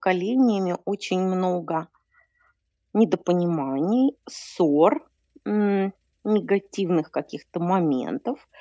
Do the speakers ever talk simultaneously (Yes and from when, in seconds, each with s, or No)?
No